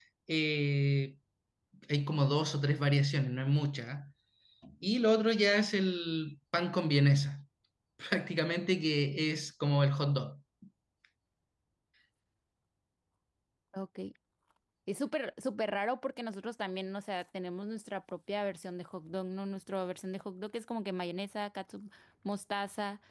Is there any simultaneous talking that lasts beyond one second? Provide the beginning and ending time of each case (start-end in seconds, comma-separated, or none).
none